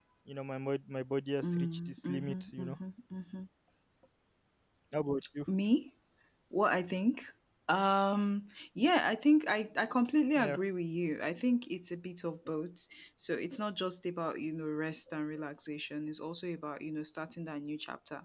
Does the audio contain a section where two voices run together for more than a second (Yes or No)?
Yes